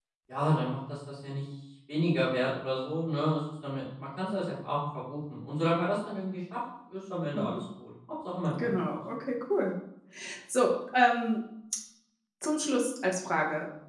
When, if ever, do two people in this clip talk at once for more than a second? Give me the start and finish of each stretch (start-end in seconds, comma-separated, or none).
none